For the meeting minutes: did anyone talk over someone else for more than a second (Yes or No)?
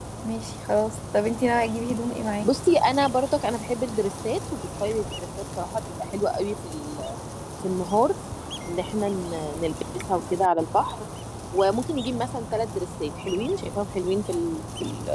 No